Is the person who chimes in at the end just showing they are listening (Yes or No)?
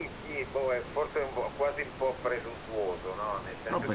Yes